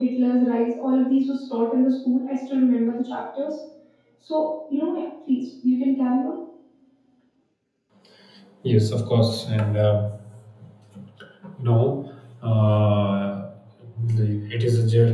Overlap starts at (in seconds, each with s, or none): none